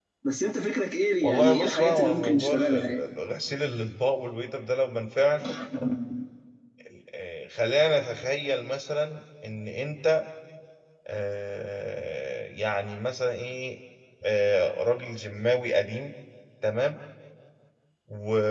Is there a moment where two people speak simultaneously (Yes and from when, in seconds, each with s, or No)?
Yes, from 1.2 s